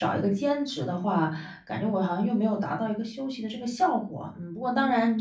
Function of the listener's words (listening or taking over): listening